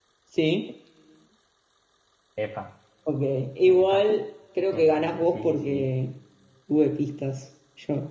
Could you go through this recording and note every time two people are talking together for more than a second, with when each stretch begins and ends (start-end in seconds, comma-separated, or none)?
4.7-5.9